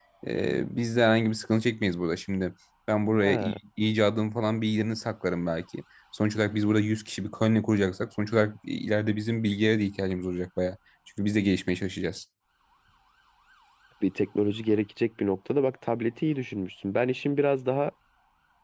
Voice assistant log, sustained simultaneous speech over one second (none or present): none